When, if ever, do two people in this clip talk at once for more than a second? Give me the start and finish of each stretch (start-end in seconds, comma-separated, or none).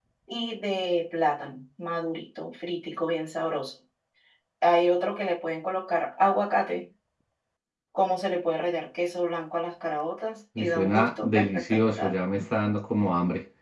10.6-12.1